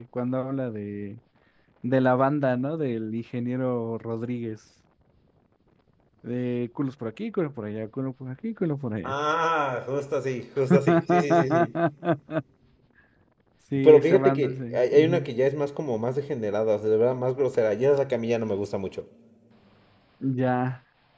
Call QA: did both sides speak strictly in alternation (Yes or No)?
No